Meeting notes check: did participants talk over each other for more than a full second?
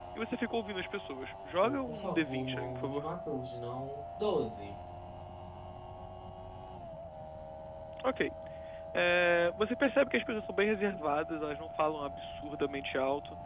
Yes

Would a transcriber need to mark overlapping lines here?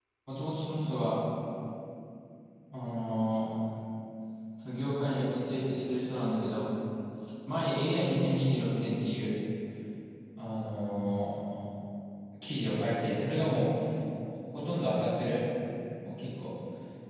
No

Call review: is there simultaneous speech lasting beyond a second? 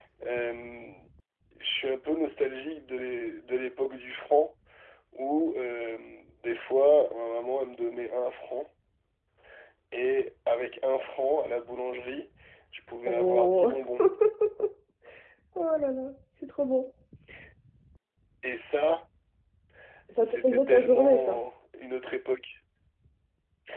Yes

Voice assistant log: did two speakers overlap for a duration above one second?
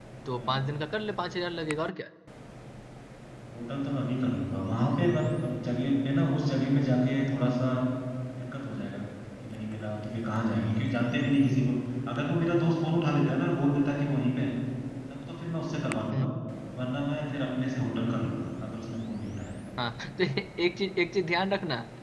No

